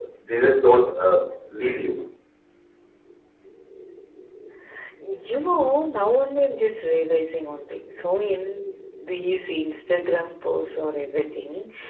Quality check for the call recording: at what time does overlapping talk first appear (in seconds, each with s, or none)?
none